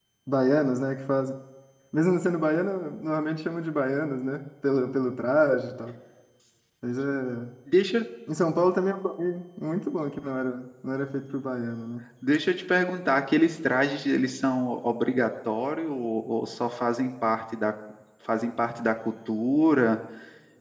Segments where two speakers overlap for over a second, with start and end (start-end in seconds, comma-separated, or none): none